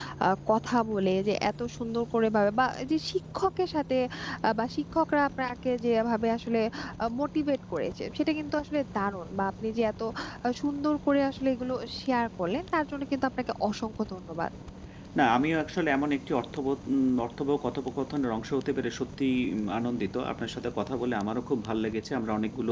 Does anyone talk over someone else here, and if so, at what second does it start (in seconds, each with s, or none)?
none